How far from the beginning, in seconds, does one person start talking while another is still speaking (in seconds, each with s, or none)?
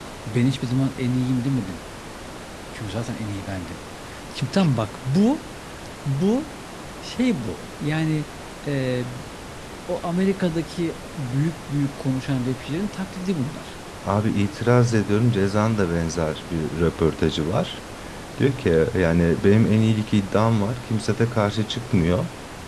none